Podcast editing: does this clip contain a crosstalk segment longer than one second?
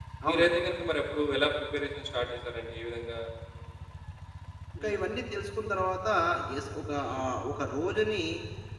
No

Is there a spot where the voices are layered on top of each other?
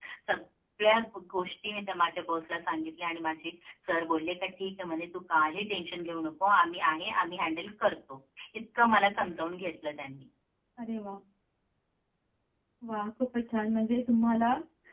No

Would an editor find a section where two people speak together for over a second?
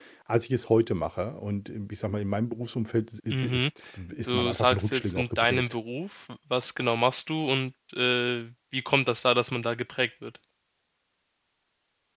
Yes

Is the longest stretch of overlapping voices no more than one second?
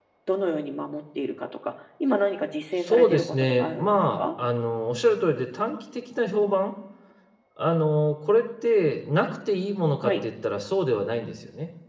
No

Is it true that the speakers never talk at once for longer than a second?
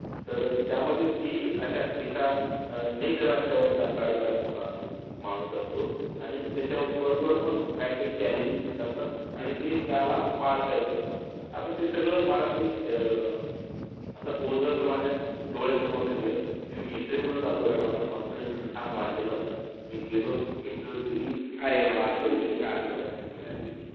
No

